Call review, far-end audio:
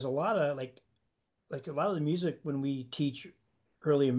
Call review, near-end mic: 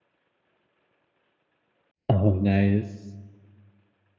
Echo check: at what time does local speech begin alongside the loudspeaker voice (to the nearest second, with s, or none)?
2 s